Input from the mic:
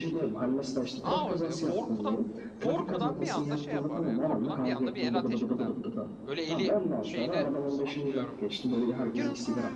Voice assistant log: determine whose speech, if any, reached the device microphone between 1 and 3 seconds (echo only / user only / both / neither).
both